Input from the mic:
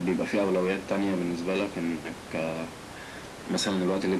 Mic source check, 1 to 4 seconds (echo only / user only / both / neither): echo only